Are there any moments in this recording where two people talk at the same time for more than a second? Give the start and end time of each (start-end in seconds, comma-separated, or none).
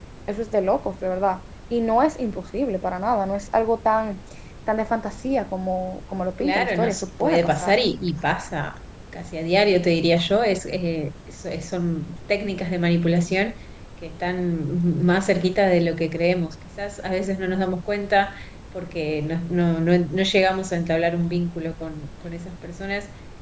6.4-7.8